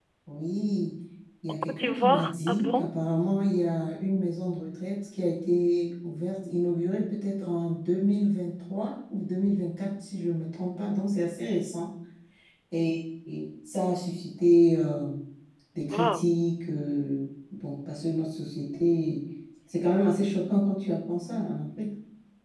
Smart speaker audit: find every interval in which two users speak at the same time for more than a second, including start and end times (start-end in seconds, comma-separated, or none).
1.5-3.0